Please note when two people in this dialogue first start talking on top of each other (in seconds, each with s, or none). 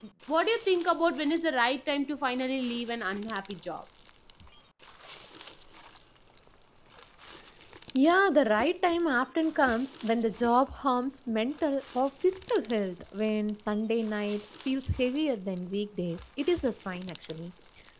none